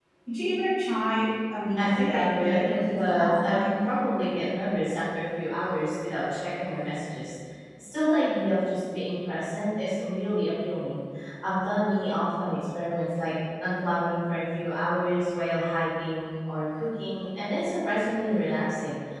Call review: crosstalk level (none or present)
present